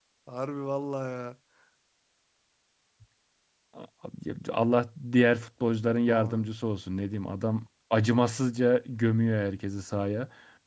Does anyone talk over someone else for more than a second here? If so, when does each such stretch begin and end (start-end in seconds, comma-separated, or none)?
none